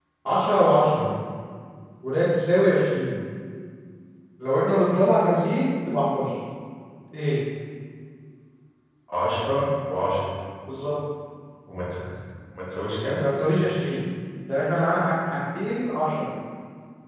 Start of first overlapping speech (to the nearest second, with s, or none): none